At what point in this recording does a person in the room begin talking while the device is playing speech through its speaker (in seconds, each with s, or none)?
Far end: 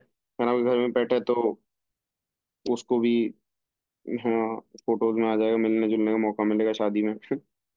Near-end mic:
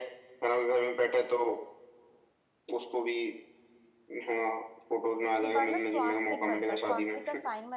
5.3 s